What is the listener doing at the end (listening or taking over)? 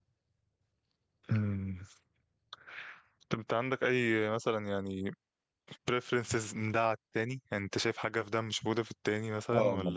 taking over